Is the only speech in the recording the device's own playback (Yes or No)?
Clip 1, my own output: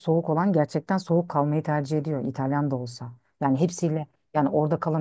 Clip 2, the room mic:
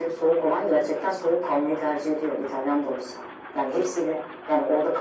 Yes